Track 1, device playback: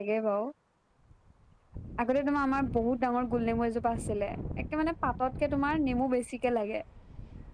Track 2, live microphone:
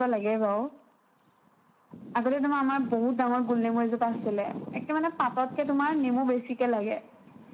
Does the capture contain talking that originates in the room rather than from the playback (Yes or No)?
No